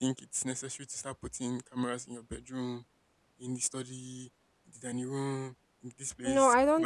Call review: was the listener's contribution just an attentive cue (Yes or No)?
No